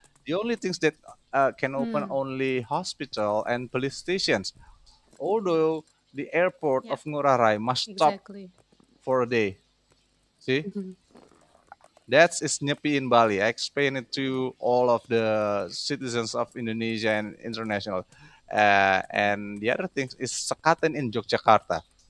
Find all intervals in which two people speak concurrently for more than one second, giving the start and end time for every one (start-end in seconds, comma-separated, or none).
none